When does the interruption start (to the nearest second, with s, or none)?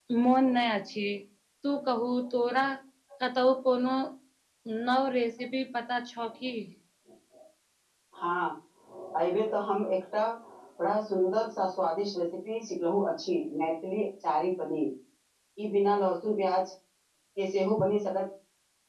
none